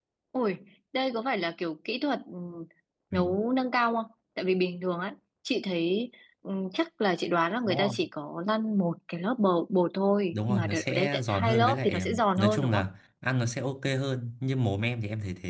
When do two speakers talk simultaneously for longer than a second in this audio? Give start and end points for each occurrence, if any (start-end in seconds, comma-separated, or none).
10.3-12.8